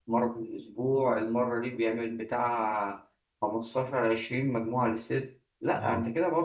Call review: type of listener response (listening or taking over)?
listening